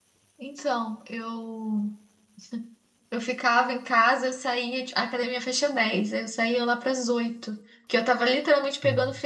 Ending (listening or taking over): listening